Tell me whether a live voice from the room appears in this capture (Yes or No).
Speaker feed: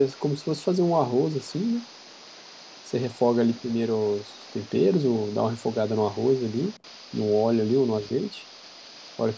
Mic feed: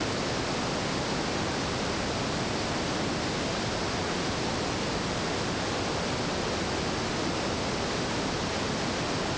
No